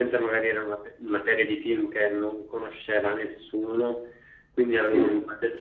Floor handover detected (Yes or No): No